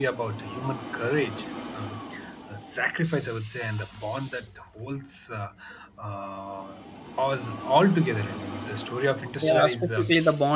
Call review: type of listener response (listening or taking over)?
taking over